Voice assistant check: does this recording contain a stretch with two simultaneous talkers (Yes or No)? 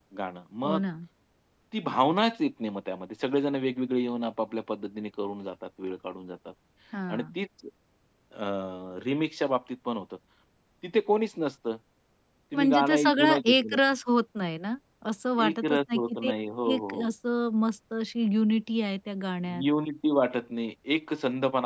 Yes